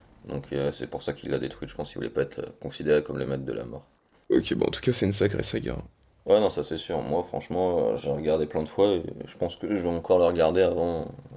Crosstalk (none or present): none